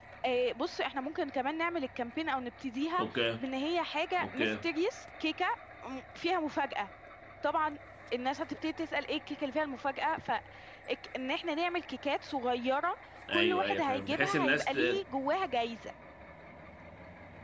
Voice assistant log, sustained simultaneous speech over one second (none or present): present